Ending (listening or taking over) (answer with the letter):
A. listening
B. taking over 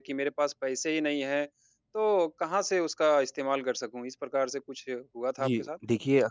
B